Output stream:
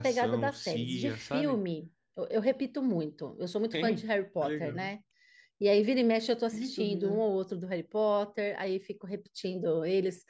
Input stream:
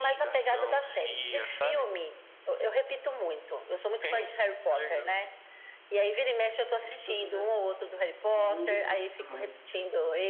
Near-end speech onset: 8.3 s

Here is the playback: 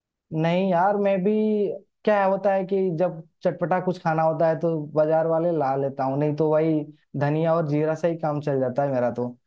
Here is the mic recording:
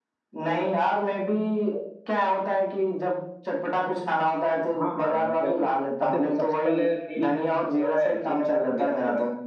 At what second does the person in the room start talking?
4.8 s

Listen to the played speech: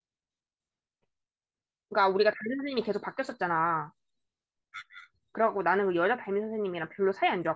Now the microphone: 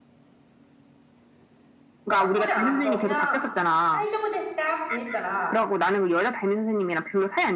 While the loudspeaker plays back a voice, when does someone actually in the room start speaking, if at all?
2.1 s

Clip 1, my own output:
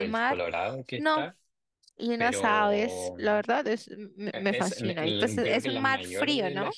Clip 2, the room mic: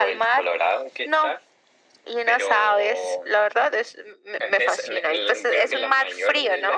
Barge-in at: none

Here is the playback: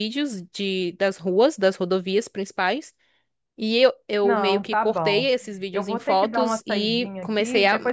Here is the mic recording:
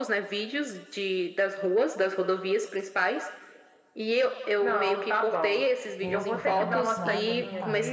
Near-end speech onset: 6.0 s

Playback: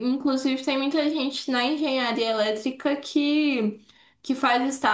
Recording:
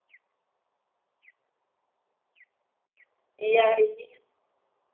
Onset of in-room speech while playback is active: 3.4 s

